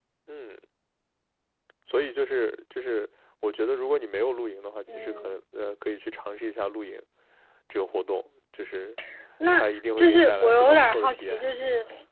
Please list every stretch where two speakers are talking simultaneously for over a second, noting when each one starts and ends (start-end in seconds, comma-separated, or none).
9.5-11.4